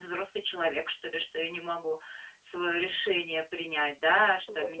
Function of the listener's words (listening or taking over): listening